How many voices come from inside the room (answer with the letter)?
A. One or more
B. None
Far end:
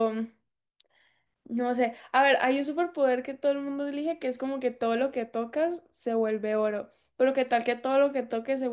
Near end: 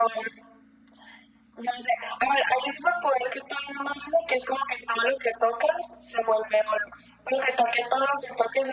B